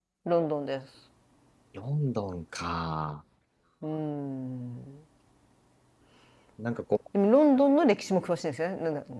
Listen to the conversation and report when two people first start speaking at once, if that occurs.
none

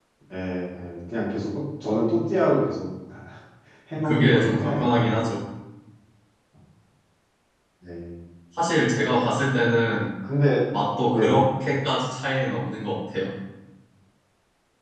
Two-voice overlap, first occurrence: 4 s

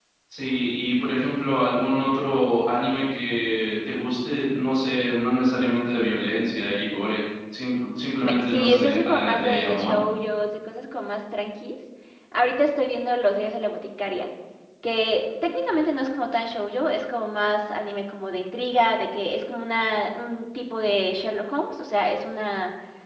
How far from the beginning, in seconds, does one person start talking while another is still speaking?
8 s

